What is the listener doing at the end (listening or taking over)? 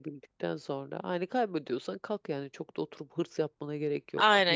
taking over